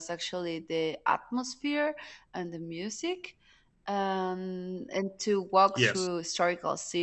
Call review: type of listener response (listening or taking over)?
listening